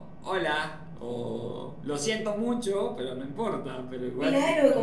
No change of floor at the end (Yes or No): No